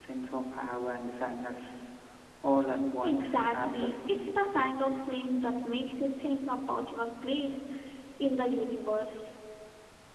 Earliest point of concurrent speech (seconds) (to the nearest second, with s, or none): 3 s